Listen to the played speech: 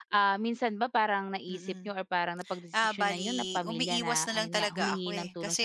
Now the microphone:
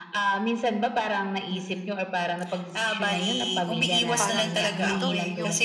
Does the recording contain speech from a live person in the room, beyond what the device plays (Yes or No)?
Yes